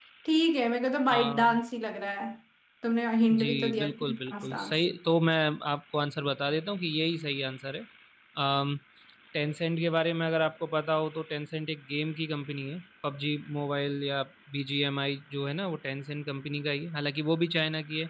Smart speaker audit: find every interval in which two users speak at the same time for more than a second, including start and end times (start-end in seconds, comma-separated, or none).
3.4-4.8